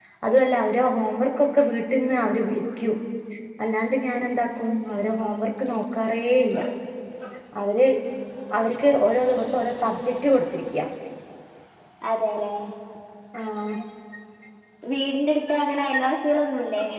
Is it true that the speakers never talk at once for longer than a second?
Yes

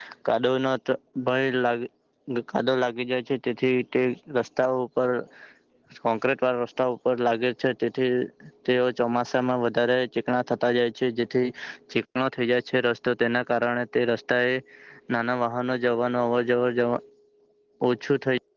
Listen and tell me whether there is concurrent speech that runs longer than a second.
No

